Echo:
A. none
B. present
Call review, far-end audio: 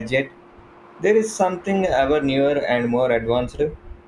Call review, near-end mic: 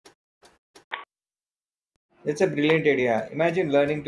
A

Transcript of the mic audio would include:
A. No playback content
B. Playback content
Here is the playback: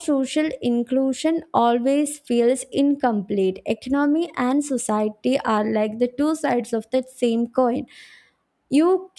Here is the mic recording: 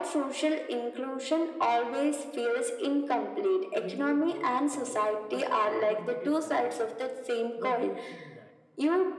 B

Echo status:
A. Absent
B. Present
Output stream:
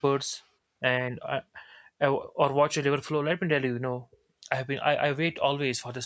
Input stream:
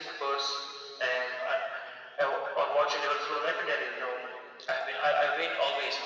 B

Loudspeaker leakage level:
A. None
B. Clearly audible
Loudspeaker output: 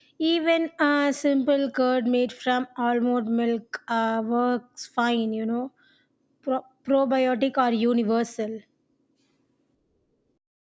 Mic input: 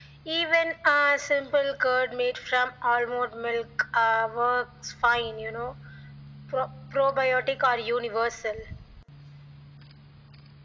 B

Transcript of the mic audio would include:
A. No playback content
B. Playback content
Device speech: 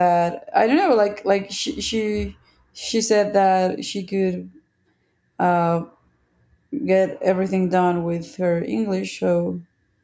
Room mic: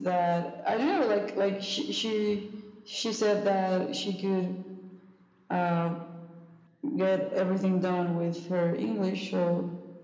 B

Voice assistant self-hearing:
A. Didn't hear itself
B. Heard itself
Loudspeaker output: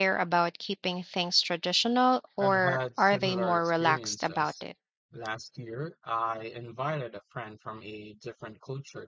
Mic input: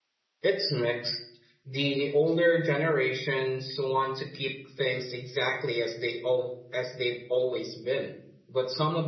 A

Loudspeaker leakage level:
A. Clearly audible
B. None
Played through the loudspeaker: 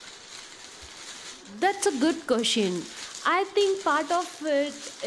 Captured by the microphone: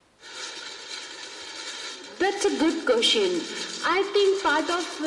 A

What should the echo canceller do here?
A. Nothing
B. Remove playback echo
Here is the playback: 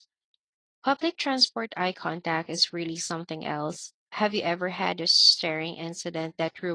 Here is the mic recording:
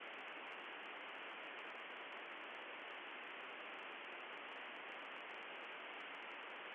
A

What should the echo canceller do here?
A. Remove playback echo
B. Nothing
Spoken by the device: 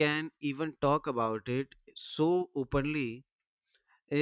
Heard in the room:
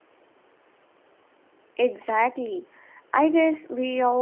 B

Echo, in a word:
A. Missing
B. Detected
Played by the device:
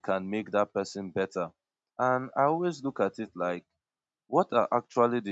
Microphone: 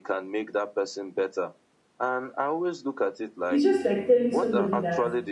B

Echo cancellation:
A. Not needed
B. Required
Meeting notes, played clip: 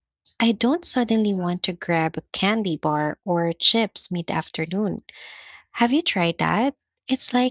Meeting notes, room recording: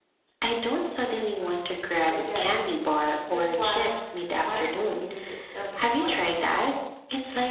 B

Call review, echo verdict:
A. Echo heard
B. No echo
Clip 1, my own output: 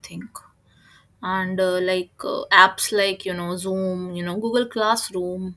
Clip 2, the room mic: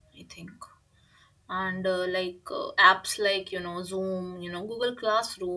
A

